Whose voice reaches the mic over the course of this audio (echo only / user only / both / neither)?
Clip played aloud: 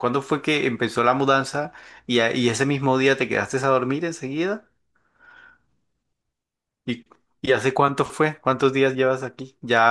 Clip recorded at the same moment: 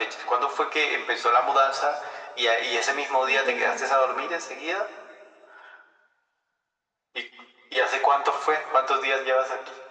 both